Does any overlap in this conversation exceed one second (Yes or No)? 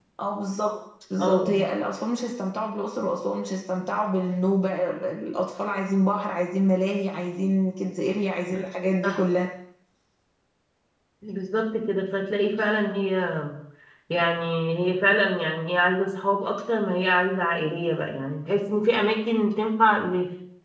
No